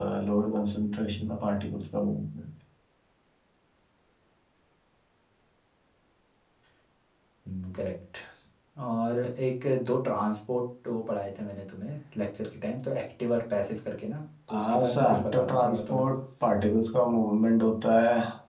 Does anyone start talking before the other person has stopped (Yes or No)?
Yes